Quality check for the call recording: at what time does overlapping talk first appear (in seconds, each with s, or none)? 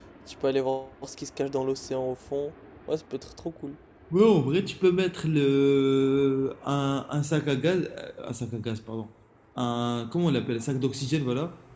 none